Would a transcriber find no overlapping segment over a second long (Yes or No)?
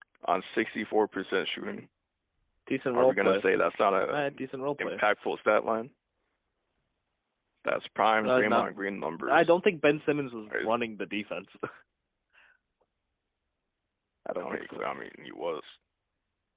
Yes